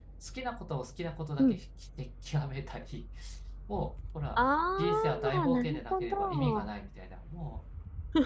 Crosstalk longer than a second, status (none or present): present